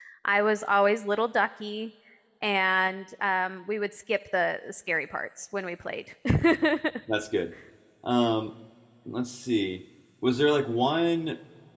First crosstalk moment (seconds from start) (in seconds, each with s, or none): none